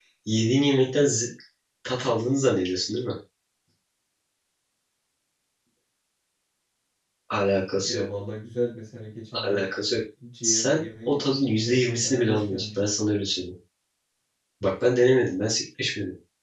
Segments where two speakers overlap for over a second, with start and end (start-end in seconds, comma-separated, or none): 10.4-12.8